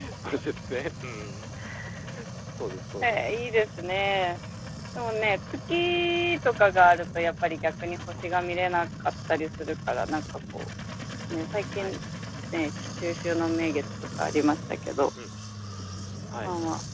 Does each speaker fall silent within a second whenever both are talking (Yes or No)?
Yes